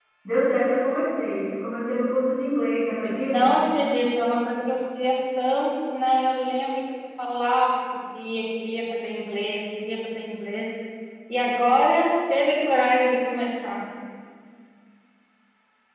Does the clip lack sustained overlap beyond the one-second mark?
Yes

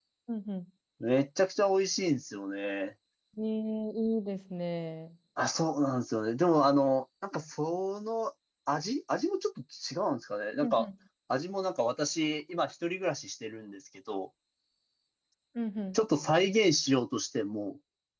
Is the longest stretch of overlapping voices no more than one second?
Yes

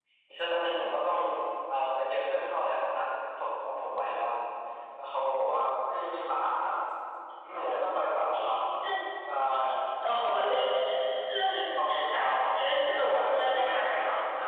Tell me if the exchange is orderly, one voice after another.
No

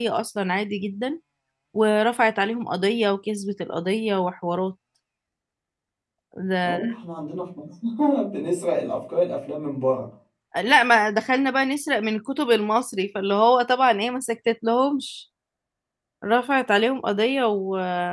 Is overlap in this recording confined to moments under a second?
Yes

